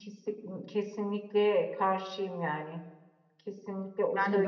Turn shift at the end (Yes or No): No